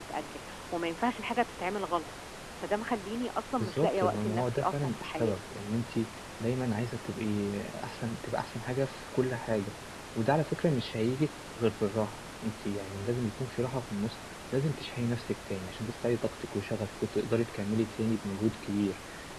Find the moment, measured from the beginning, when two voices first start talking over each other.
3.6 s

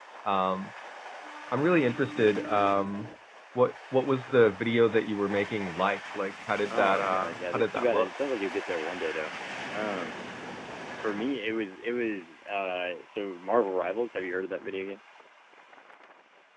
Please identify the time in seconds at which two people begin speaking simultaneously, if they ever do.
6.7 s

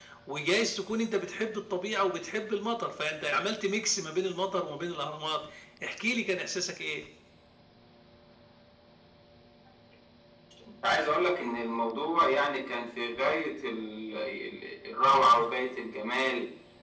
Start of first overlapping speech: none

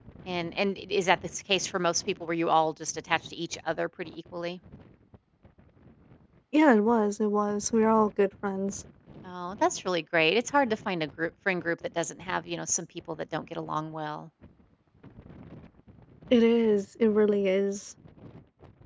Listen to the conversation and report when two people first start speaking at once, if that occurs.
none

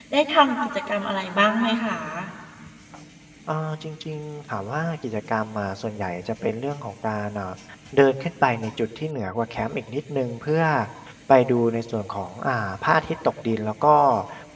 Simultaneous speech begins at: none

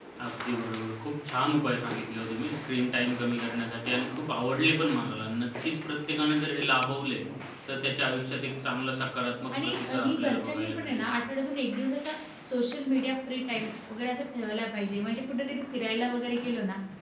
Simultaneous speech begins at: 9.5 s

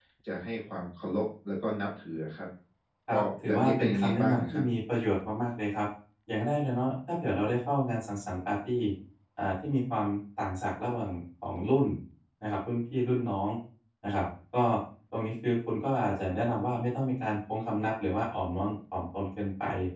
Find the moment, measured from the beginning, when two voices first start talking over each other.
3.1 s

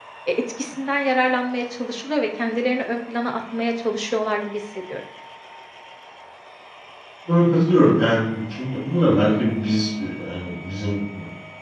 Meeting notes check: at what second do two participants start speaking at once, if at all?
none

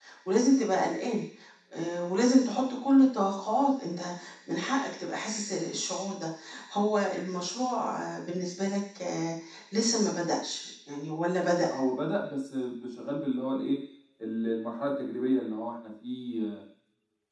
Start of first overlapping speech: none

